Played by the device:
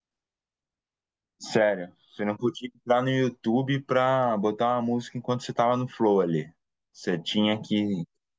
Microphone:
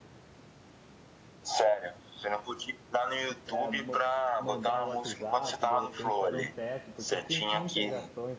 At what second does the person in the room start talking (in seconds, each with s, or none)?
3.5 s